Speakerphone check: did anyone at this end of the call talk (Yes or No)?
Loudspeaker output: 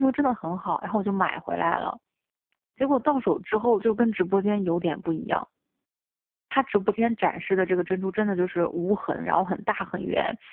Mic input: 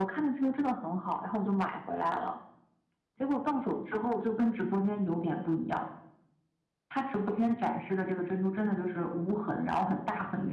No